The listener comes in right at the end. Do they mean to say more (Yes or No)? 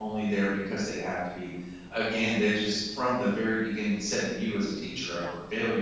No